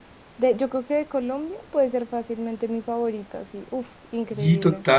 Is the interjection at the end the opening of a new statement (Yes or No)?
Yes